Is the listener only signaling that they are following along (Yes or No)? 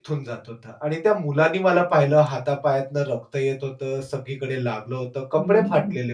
No